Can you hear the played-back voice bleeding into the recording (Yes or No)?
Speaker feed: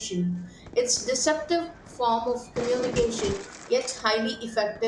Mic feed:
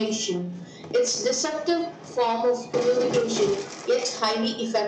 Yes